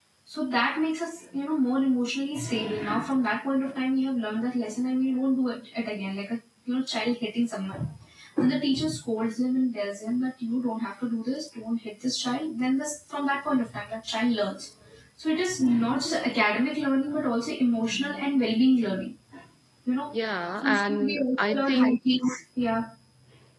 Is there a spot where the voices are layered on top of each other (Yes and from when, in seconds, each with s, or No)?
Yes, from 20.6 s